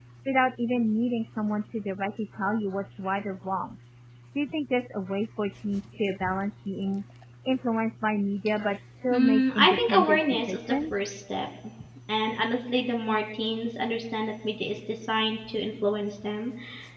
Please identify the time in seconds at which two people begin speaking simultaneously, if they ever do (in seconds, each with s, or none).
9.1 s